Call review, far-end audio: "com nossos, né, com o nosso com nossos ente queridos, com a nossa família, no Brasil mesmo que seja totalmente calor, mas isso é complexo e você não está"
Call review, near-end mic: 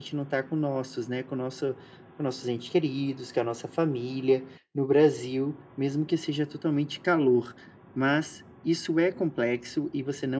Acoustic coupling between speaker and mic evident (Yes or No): Yes